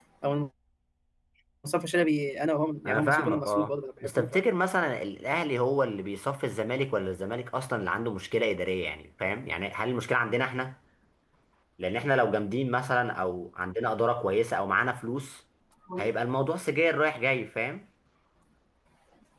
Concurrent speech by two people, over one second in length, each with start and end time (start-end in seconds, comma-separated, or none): 2.8-4.3